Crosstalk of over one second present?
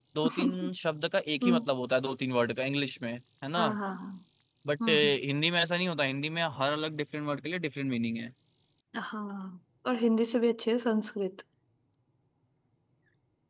No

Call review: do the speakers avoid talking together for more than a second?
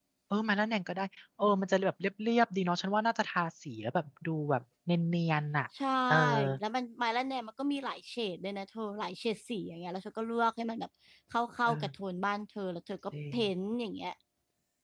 Yes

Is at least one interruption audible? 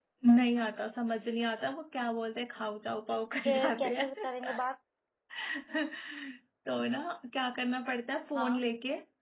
Yes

